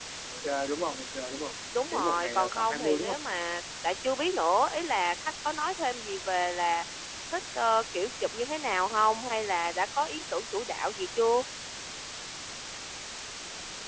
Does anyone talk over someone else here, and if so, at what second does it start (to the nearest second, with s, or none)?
2 s